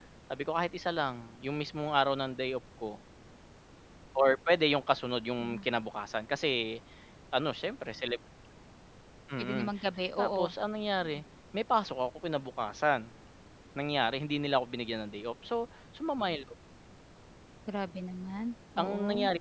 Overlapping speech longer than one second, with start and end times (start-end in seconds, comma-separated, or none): none